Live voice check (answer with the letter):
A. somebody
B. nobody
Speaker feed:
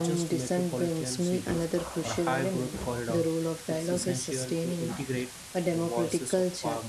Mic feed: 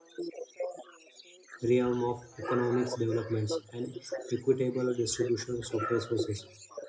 A